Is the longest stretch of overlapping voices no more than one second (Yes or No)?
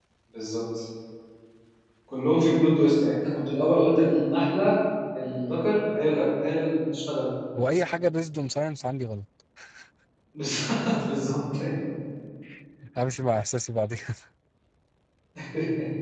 Yes